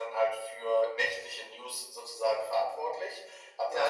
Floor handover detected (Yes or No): Yes